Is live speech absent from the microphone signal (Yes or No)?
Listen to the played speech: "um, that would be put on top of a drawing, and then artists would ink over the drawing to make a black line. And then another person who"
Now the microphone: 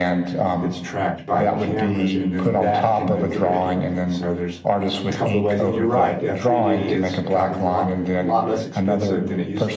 No